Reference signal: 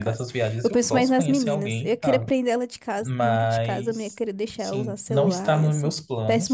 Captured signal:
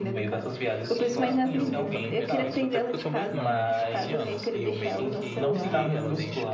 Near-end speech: present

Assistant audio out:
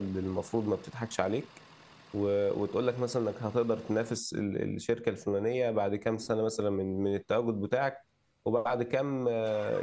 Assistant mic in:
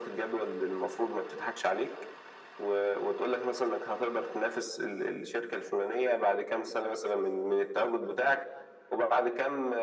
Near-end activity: none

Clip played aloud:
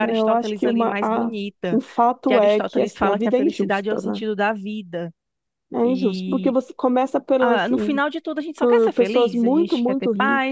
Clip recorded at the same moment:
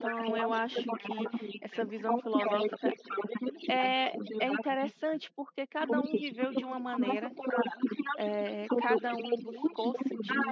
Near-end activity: present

